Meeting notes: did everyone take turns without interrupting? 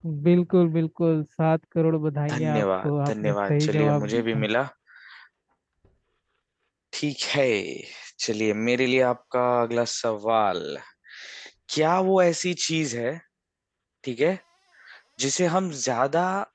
No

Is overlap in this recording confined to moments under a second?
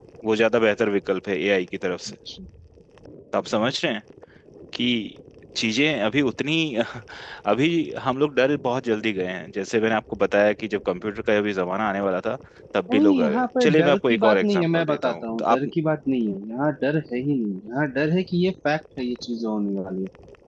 No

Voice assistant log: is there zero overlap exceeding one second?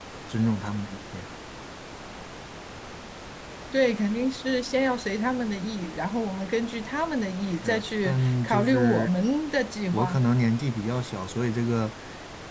No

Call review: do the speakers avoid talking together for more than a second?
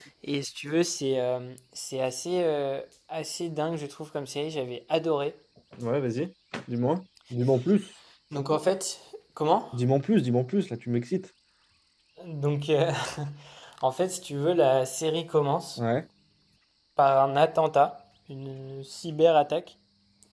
Yes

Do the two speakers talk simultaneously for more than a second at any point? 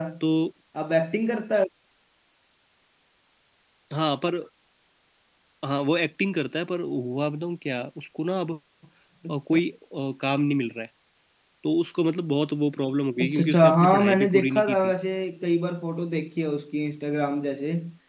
Yes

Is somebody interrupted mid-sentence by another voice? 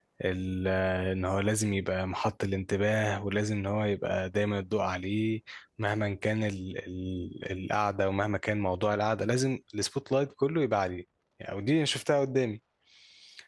No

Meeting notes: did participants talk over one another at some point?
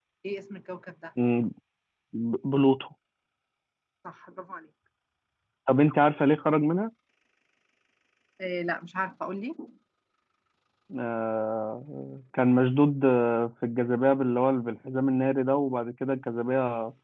No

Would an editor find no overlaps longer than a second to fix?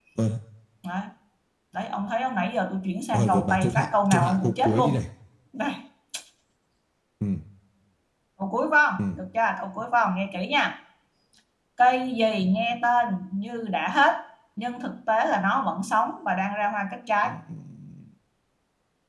No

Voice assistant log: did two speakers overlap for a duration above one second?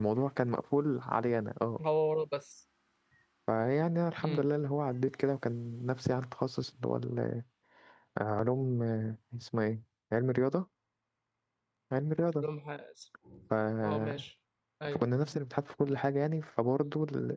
No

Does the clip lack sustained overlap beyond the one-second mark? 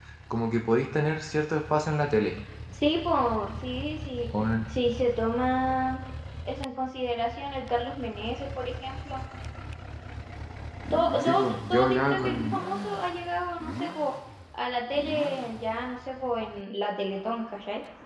No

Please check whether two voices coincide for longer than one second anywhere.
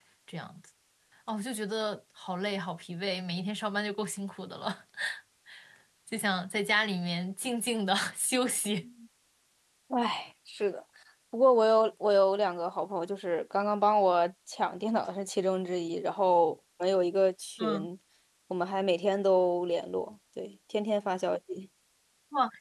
No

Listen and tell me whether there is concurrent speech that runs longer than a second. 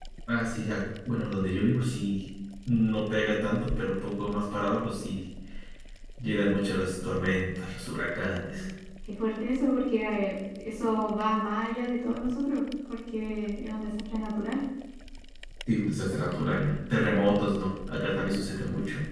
No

